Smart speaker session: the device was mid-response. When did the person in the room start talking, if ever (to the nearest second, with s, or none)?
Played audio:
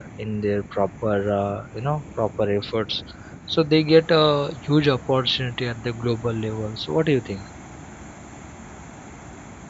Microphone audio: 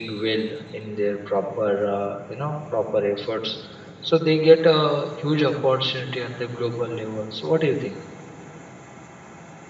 none